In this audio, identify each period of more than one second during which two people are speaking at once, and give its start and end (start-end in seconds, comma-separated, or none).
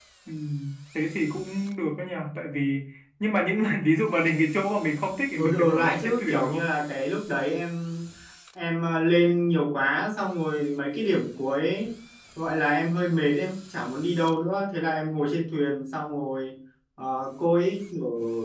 5.4-6.6